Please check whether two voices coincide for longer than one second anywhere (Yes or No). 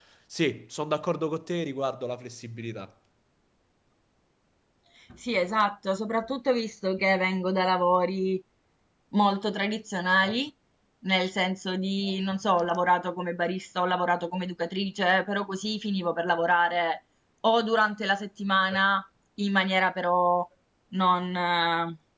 No